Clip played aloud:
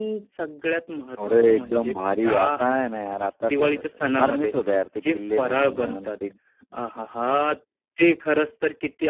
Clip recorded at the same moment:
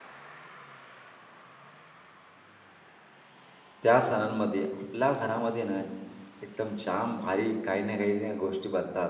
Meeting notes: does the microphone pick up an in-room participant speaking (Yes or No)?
Yes